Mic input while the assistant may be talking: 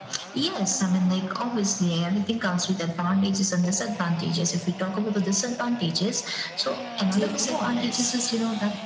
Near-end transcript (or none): Do you agree on this?